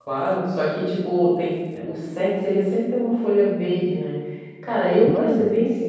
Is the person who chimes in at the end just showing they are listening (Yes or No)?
Yes